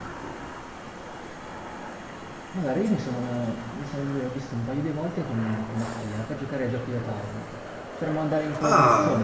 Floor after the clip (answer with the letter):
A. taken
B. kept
B